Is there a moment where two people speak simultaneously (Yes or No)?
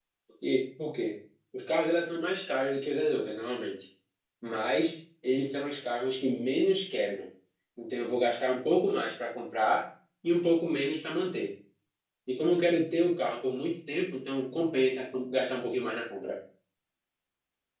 No